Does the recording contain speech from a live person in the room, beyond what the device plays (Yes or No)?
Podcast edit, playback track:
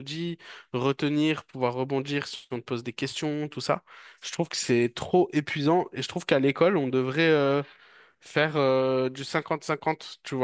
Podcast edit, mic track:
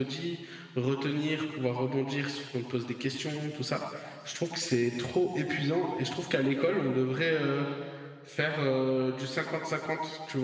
No